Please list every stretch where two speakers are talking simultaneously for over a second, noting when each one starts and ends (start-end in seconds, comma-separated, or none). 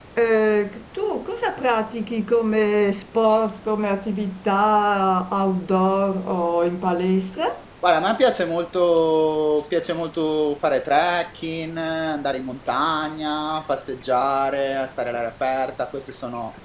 none